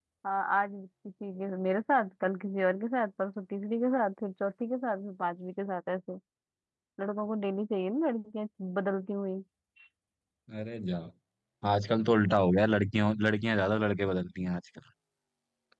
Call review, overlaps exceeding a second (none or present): none